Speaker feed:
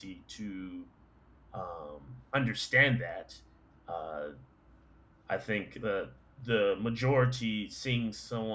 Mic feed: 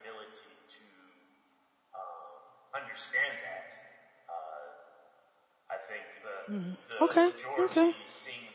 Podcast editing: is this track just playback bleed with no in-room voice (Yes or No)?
No